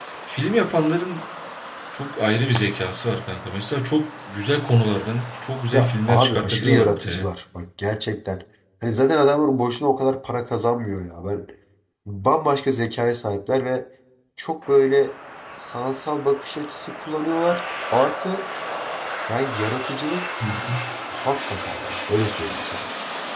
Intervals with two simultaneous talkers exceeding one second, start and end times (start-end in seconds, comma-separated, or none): 5.7-7.3